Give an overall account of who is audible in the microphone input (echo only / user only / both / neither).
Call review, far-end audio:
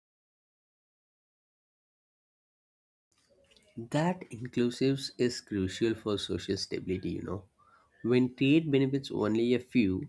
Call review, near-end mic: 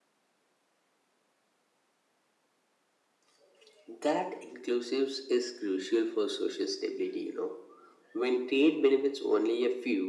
echo only